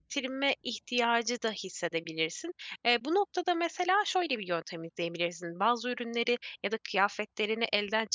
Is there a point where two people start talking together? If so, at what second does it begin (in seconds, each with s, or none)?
none